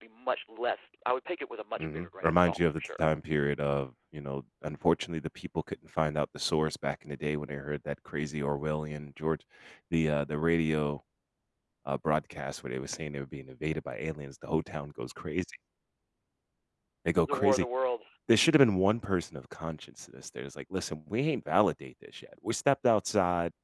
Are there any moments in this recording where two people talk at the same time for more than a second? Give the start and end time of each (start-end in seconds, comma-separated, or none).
1.8-3.0